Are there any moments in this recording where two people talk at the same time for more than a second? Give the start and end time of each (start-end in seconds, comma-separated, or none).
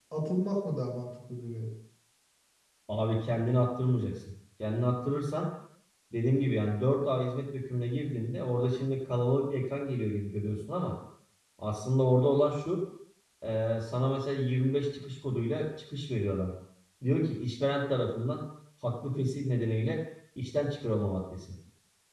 none